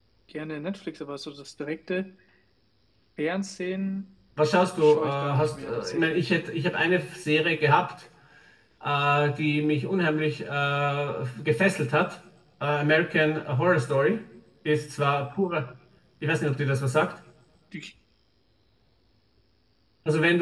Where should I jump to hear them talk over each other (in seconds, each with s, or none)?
4.8 s